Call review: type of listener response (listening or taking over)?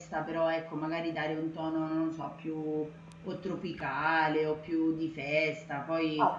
taking over